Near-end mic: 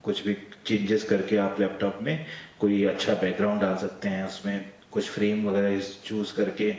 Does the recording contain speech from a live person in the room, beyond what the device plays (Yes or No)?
Yes